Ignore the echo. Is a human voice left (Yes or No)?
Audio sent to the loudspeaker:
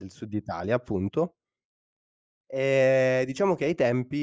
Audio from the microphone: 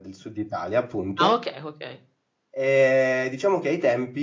Yes